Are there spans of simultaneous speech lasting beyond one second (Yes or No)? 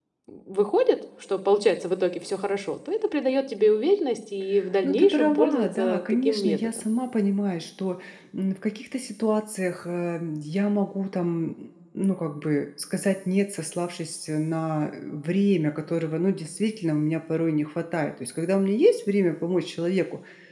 Yes